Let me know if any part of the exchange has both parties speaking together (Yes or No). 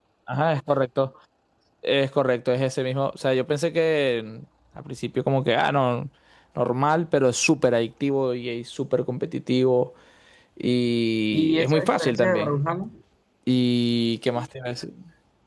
Yes